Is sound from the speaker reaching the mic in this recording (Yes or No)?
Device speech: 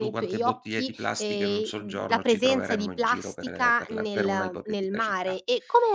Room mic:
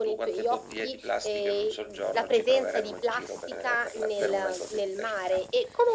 Yes